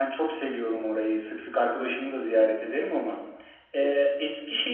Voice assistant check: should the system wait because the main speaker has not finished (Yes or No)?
Yes